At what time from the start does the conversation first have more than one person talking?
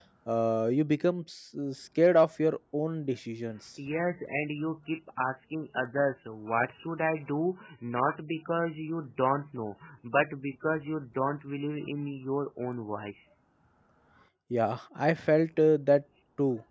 none

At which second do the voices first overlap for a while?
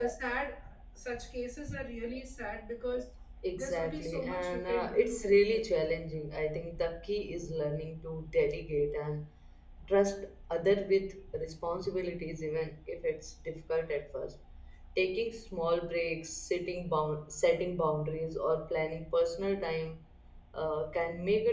3.5 s

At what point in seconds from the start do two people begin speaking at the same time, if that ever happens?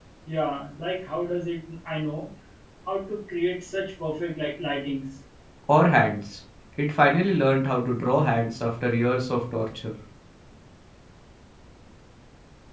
none

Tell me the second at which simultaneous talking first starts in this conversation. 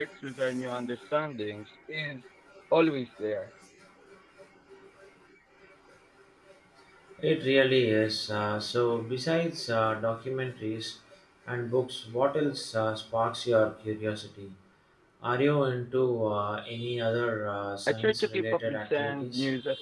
17.9 s

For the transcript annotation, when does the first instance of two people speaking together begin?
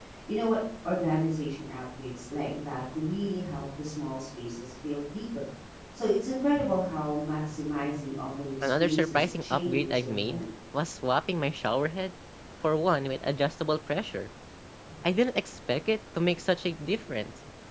8.6 s

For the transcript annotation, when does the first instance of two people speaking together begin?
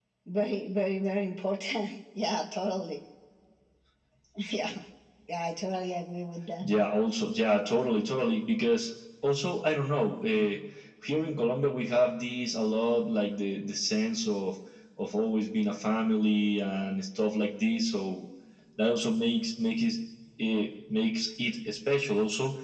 none

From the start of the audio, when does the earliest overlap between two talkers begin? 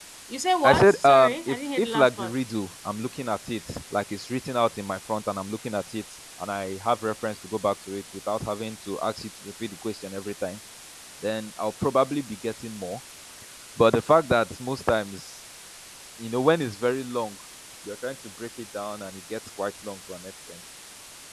0.6 s

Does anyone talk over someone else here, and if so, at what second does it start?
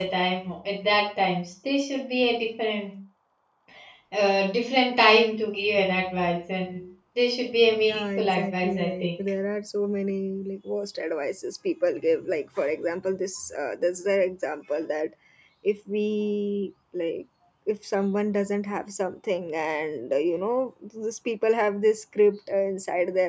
7.7 s

